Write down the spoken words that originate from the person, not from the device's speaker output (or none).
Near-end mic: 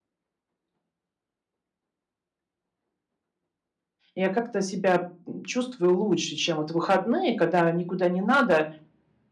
Я как-то себя м, чувствую лучше, чем вот выходные, когда никуда не надо.